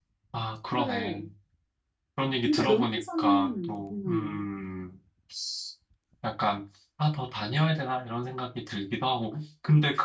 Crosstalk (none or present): present